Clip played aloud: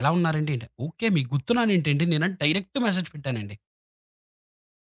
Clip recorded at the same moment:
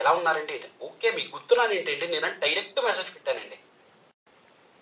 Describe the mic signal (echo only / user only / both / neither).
echo only